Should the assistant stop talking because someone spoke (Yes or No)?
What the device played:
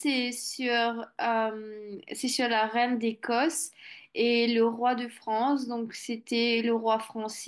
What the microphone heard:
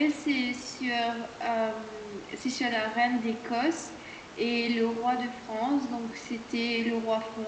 No